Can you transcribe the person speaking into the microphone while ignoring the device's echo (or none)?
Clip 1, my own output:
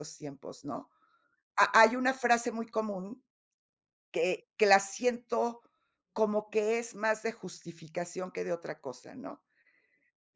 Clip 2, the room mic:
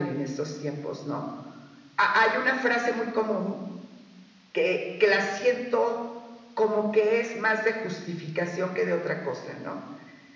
none